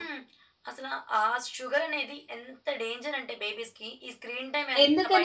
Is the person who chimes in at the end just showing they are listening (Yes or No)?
No